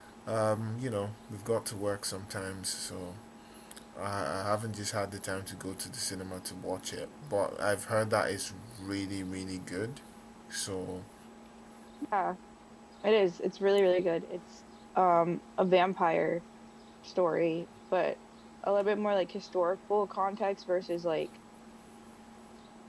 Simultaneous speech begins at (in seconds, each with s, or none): none